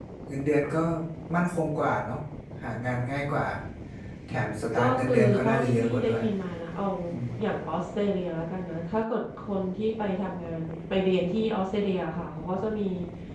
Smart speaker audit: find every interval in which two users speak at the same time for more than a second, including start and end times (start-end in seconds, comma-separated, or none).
4.7-6.2